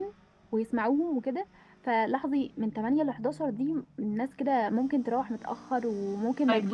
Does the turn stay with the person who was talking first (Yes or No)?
No